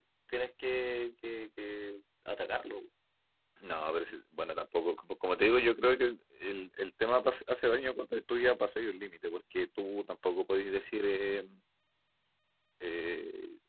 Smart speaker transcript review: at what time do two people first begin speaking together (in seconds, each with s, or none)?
none